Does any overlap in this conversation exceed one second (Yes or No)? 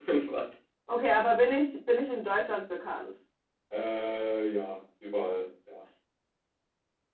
No